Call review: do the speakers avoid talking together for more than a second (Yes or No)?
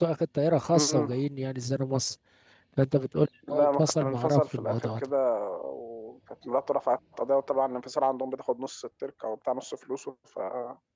No